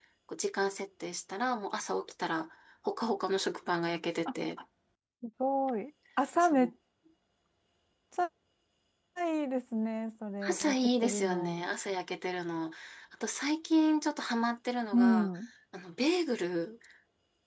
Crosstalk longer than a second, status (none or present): present